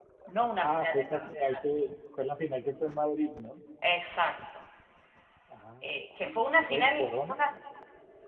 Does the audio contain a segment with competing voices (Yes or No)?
Yes